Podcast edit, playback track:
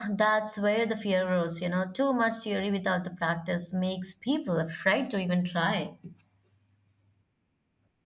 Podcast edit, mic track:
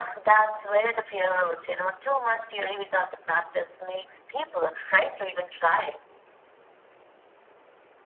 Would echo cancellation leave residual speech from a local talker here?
No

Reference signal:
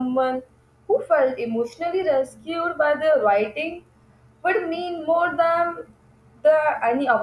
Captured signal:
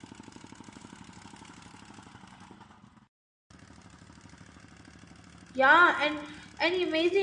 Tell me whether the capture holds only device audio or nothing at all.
No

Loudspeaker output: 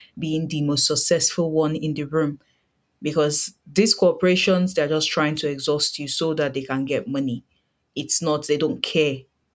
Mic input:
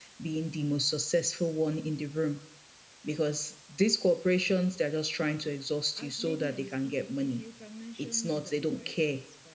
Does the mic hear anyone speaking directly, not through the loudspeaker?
Yes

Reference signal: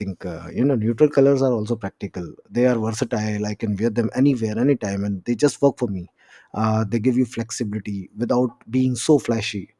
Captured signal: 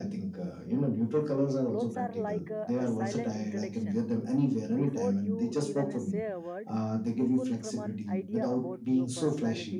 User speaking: Yes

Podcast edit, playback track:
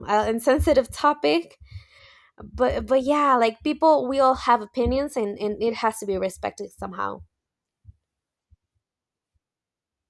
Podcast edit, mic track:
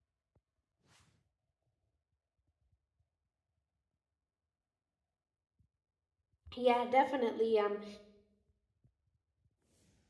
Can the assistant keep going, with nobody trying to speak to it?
No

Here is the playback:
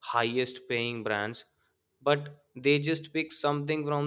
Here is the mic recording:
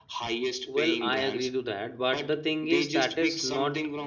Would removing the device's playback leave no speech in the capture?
No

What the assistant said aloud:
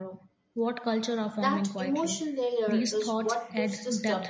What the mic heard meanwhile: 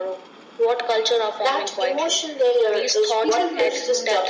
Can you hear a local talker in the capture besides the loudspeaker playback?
Yes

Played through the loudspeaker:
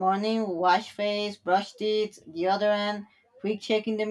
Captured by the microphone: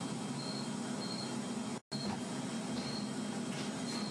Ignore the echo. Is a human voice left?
No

